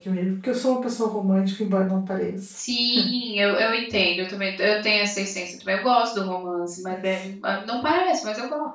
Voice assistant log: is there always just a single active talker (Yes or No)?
Yes